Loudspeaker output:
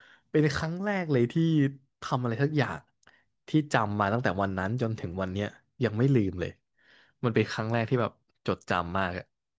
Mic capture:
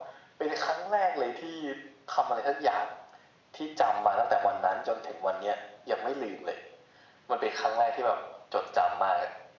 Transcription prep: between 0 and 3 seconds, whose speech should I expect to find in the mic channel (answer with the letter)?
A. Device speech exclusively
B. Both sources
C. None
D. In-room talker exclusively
A